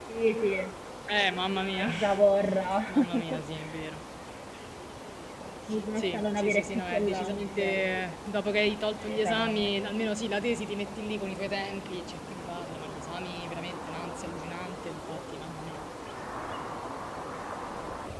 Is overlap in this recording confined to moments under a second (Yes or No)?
No